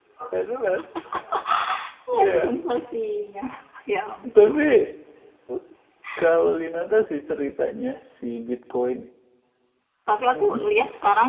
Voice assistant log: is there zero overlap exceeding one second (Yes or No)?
Yes